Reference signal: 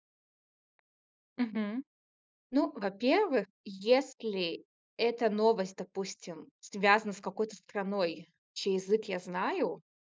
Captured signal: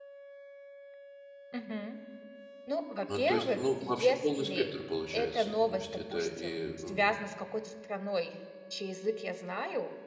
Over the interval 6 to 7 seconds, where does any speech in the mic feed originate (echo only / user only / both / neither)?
both